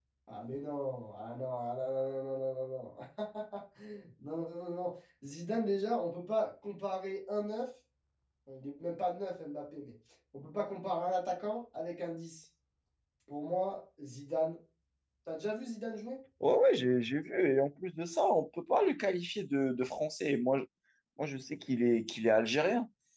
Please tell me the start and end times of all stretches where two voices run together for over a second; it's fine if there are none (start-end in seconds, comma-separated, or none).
none